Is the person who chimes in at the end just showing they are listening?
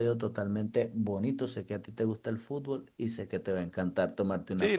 No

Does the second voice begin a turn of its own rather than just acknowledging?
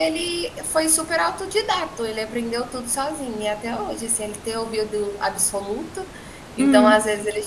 No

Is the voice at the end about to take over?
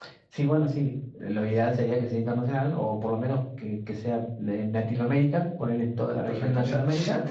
Yes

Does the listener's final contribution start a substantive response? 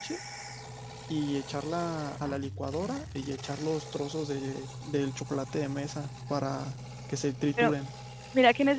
Yes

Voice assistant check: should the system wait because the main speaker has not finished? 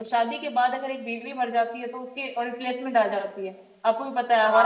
No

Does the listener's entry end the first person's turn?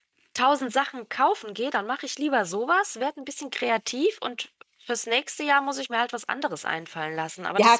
Yes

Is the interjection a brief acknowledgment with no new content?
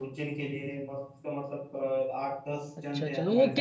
No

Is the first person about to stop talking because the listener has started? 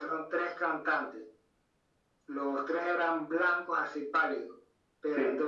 No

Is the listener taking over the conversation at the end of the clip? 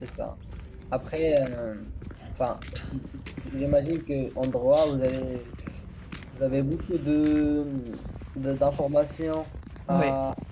No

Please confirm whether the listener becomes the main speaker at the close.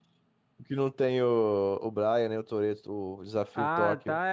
Yes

